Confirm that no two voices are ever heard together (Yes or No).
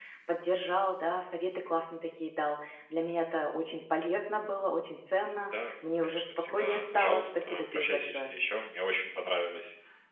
No